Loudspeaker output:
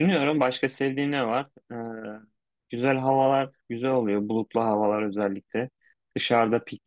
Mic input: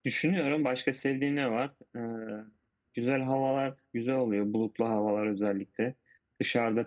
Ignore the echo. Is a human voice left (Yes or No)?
No